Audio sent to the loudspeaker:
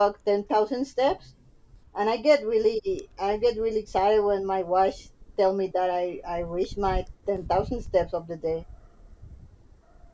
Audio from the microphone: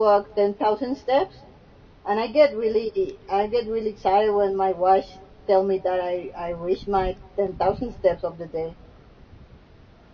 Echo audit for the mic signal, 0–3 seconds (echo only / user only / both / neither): echo only